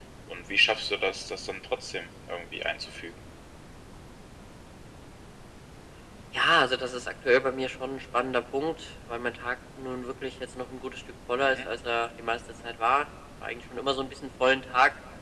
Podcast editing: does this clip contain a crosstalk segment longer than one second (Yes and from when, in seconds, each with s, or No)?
No